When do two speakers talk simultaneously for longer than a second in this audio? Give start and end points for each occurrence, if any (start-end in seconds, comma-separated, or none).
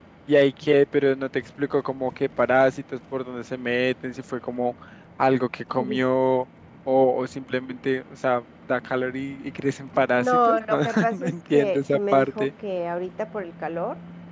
10.1-12.5